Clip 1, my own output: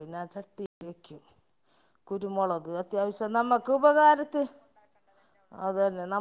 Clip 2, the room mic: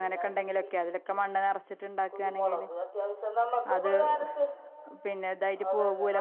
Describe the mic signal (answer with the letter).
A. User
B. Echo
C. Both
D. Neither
C